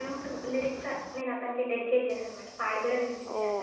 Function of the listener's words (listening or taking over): taking over